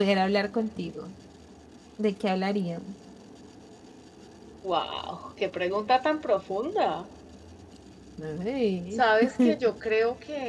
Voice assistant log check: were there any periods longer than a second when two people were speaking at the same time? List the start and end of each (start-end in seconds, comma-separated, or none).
none